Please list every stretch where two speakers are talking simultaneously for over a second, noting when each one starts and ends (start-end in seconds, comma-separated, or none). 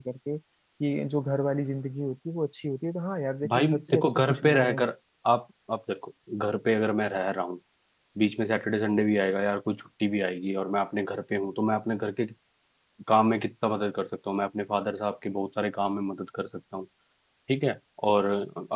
3.5-4.8